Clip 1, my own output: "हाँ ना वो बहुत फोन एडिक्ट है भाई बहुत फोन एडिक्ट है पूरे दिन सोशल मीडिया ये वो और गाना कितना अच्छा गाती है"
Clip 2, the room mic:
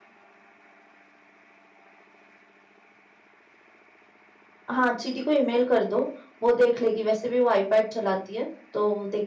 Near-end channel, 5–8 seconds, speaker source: user only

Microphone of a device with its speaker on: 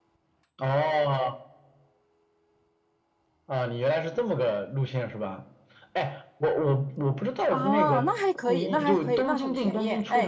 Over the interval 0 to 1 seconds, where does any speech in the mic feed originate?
echo only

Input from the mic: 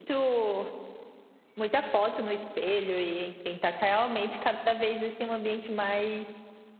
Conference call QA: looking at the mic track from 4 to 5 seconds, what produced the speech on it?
user only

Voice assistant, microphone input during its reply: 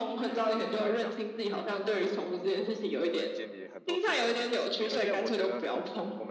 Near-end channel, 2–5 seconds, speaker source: both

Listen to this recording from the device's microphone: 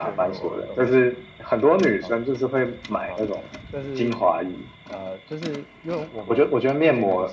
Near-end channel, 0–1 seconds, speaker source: both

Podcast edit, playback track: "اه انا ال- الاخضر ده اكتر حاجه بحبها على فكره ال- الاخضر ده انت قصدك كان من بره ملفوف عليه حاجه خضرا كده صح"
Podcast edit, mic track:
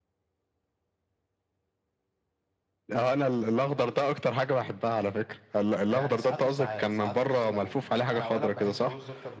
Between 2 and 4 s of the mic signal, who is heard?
echo only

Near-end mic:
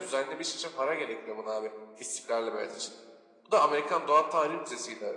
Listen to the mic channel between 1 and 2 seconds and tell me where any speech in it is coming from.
echo only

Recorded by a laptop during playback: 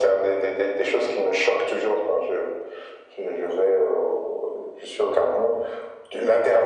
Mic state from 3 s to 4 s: echo only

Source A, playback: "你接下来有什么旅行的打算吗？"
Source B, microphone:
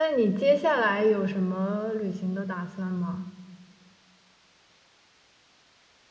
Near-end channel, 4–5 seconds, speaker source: neither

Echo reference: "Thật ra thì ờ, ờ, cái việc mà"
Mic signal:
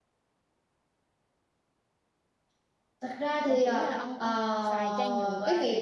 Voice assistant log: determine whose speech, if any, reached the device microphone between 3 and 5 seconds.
both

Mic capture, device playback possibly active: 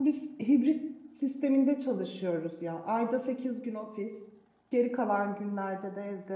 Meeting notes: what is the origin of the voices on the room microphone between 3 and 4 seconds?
user only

